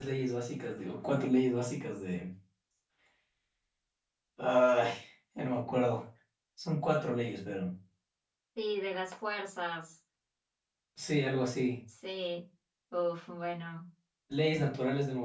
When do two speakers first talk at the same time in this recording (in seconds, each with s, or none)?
none